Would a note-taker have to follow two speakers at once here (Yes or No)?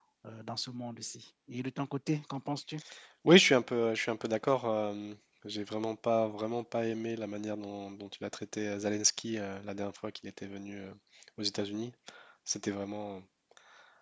No